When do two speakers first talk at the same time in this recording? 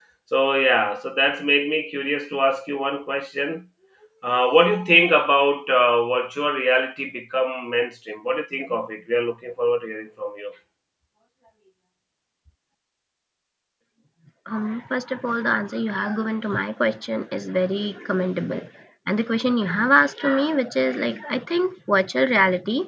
none

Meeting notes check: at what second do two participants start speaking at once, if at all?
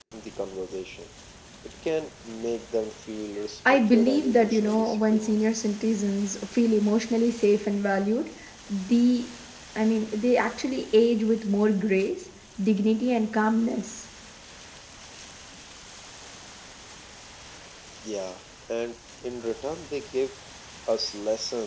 4 s

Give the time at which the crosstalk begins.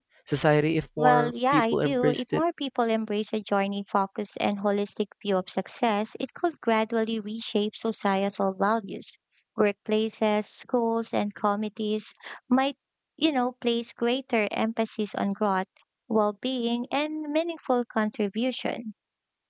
1 s

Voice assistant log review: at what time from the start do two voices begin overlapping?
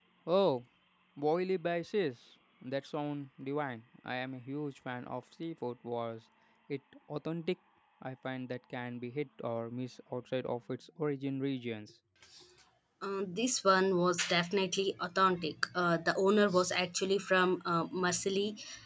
none

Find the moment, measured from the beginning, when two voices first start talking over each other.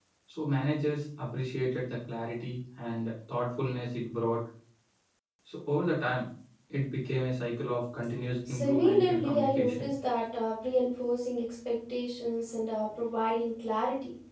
8 s

